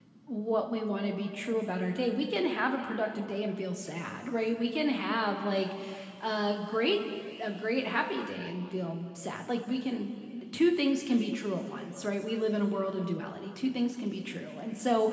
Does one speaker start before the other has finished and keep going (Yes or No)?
No